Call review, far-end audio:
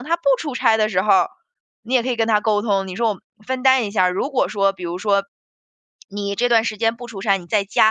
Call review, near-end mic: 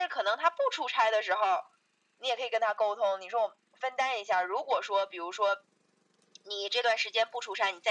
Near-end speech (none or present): none